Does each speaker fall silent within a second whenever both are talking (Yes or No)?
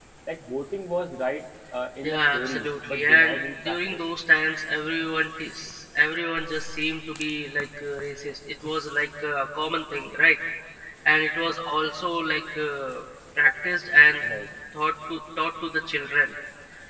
No